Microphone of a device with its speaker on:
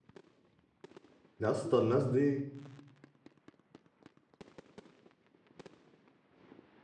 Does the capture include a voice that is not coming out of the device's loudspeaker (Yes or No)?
Yes